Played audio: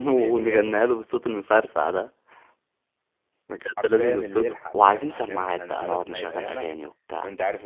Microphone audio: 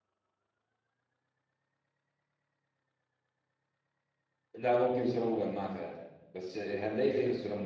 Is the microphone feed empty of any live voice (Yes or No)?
No